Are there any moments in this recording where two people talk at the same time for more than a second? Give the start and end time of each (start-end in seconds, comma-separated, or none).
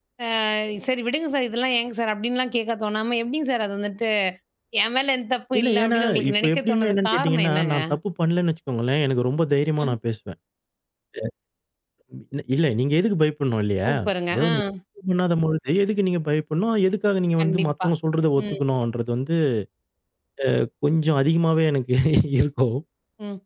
5.6-7.8